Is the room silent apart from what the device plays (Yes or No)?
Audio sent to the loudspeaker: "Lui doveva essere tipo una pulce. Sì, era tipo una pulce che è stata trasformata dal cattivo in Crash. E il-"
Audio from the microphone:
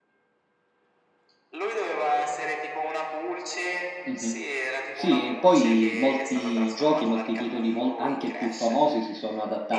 No